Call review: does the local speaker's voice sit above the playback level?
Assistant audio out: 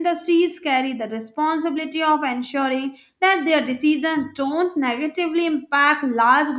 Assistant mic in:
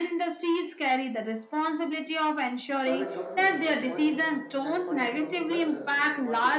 No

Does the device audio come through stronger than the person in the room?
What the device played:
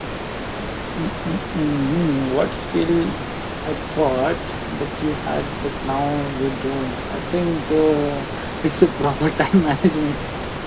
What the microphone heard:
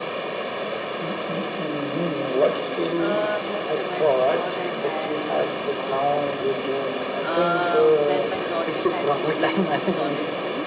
Yes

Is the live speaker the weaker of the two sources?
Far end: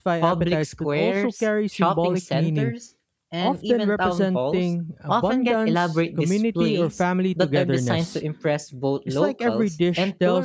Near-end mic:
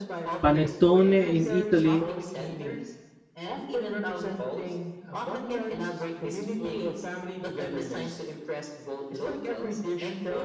No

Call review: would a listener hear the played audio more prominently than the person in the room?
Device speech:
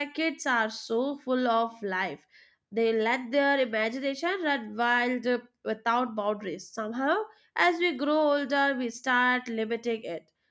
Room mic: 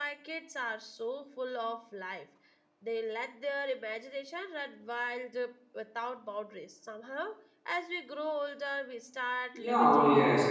No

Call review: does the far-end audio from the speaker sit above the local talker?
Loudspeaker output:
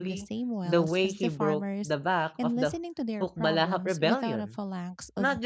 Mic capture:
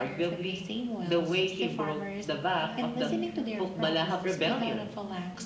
Yes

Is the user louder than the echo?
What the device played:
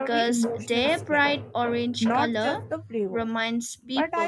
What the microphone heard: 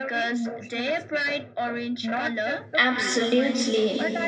Yes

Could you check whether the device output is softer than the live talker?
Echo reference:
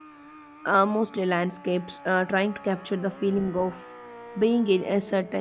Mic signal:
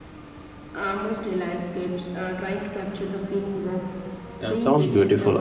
Yes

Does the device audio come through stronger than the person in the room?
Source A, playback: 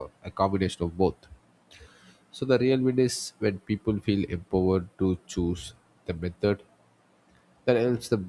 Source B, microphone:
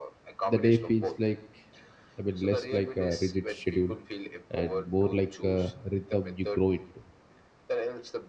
No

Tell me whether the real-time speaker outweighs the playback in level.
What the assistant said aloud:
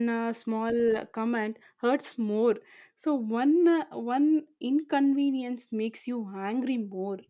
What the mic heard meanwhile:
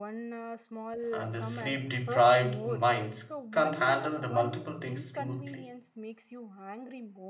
Yes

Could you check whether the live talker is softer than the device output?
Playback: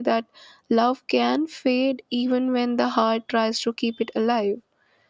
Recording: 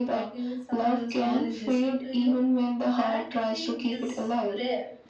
Yes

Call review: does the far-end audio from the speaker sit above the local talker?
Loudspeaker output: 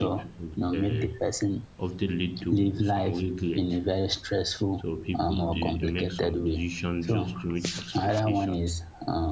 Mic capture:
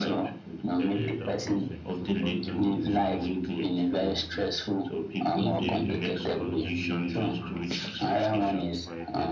Yes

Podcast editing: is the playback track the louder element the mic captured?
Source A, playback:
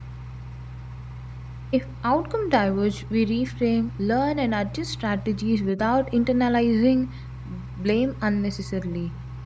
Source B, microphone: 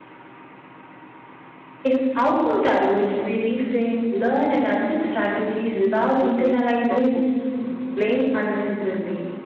Yes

